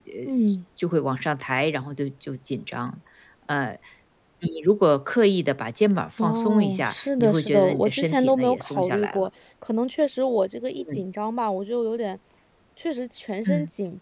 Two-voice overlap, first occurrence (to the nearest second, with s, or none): 6 s